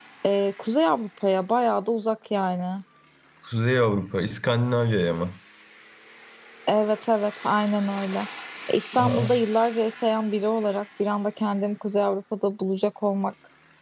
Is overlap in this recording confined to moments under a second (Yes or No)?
Yes